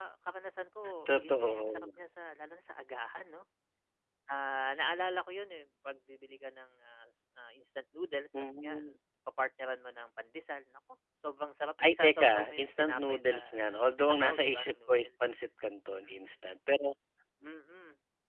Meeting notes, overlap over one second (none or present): present